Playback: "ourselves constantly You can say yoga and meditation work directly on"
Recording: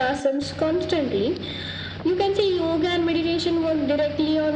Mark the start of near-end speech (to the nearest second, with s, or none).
none